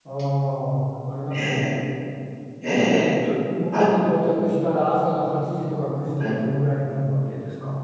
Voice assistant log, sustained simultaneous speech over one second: none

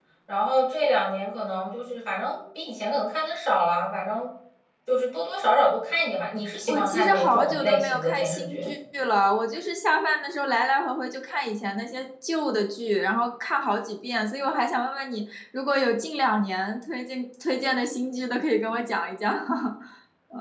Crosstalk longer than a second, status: present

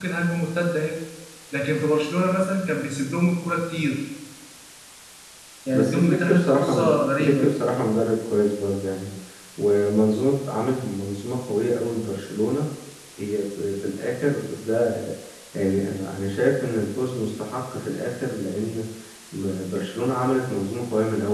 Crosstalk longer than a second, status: present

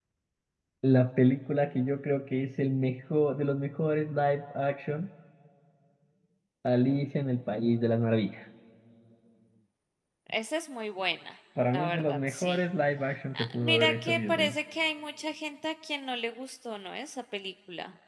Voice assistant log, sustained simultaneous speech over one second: present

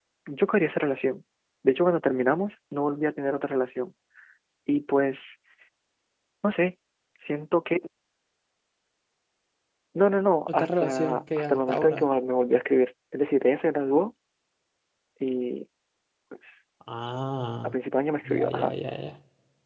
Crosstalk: present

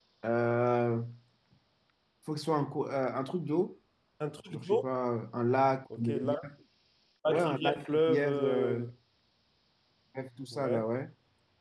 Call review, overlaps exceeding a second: present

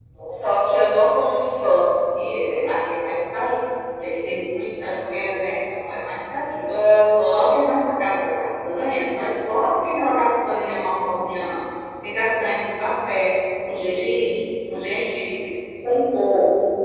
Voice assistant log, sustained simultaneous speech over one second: none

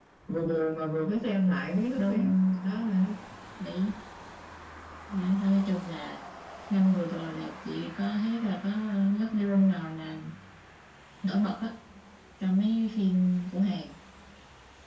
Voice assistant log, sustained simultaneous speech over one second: none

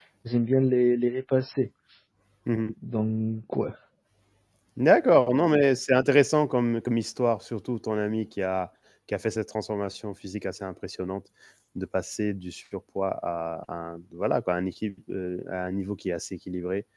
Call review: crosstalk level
none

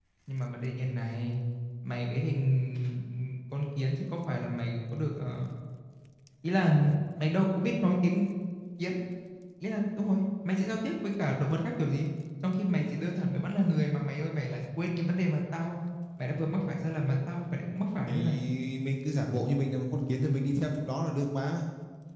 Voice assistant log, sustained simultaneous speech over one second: none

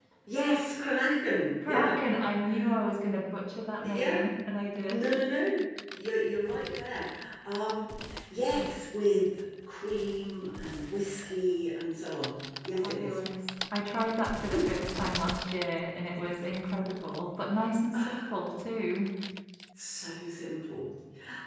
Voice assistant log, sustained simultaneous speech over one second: none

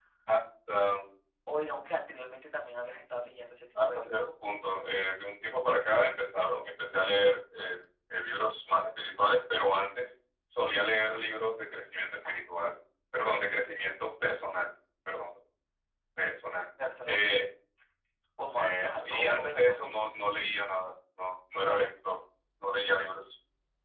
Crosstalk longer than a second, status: present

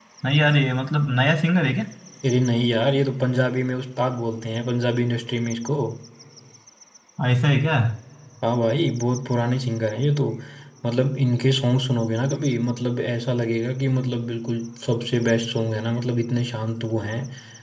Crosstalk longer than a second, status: none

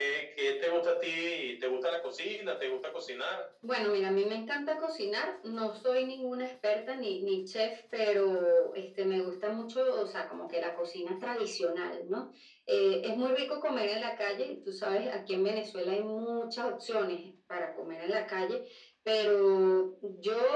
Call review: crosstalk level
none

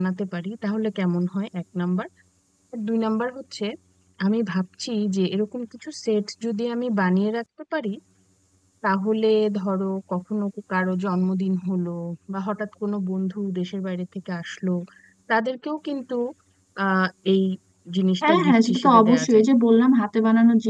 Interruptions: present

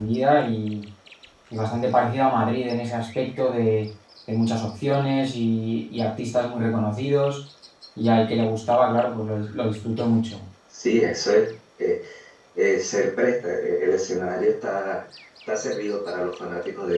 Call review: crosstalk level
none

